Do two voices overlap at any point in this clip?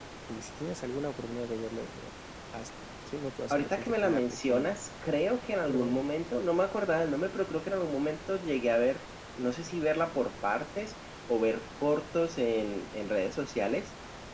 Yes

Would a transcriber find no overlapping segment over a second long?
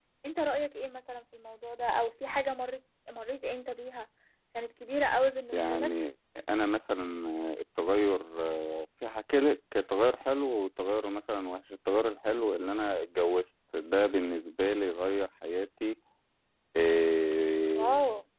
Yes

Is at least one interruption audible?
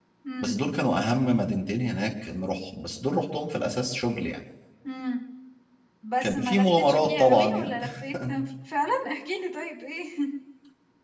Yes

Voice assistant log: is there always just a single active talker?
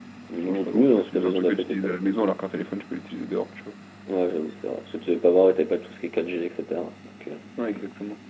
No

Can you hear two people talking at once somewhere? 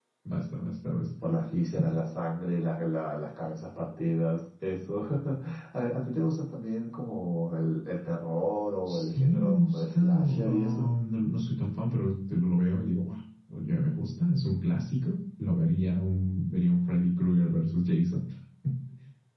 Yes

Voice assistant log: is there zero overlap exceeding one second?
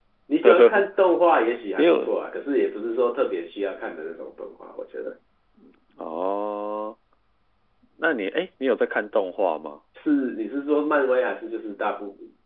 Yes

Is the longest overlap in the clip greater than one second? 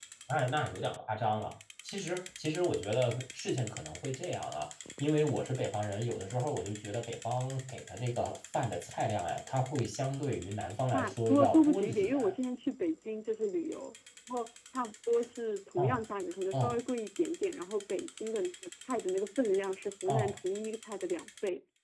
Yes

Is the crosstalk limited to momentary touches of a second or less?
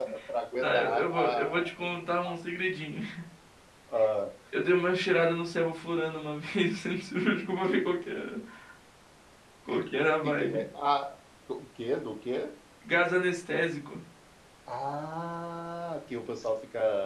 No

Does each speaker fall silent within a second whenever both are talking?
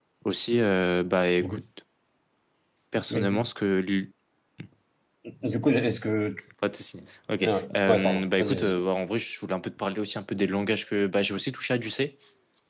No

